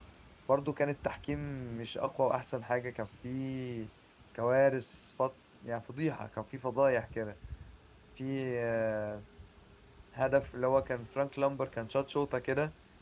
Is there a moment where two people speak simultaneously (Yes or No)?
No